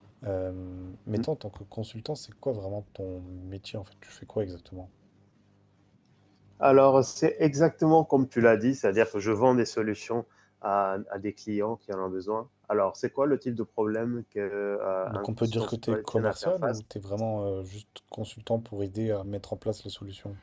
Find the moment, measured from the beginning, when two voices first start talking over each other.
15.0 s

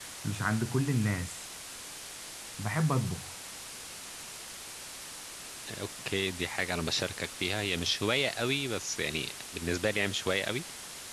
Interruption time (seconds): none

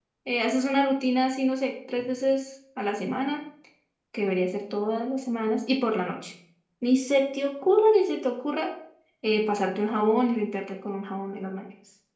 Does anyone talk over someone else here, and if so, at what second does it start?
none

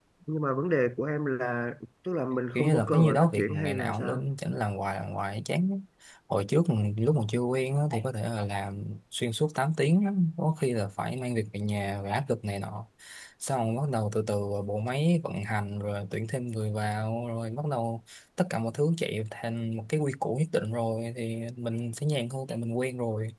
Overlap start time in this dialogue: 2.5 s

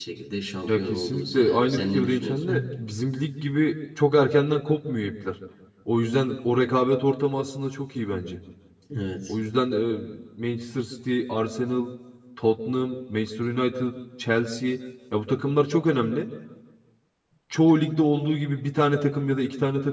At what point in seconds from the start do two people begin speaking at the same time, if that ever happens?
0.7 s

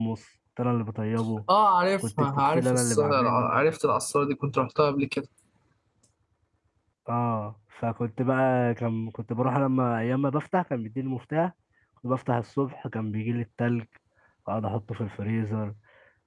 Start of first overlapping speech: 2.0 s

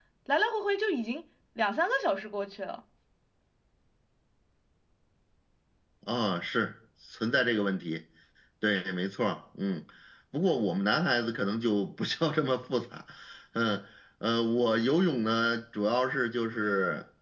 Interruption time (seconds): none

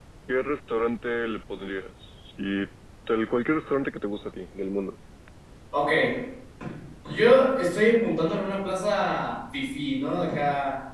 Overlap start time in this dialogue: none

